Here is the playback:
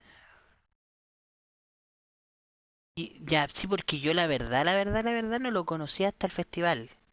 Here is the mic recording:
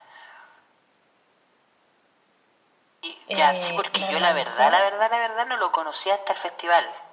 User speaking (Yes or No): Yes